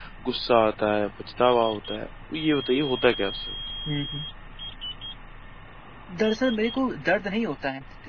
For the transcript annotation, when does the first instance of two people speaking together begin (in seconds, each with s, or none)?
none